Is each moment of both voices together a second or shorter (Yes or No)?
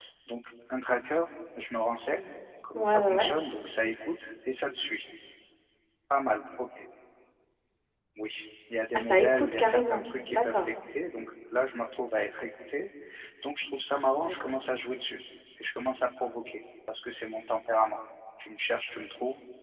No